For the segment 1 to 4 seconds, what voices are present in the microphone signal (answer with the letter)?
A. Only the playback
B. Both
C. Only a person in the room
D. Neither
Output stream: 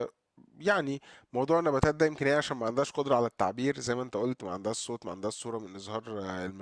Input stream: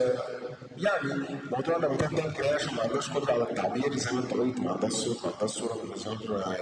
A